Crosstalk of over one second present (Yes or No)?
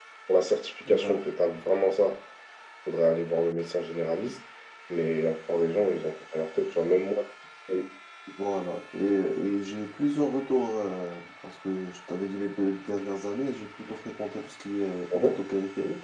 No